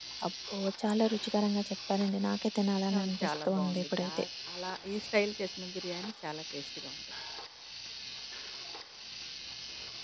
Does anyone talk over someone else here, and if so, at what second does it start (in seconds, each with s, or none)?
2.9 s